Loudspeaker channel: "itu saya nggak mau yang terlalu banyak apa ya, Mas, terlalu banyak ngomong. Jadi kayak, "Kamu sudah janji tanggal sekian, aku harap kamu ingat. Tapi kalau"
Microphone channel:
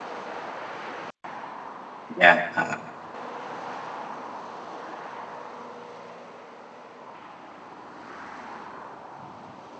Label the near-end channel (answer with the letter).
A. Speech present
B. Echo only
A